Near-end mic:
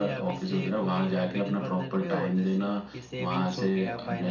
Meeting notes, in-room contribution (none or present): present